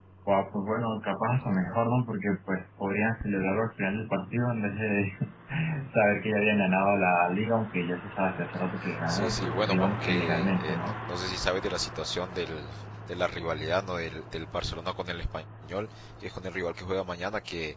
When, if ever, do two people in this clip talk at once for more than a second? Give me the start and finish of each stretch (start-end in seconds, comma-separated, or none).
9.1-10.9